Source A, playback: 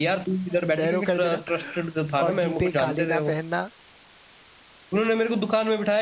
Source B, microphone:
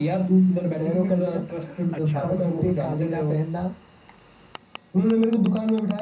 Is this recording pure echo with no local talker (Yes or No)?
No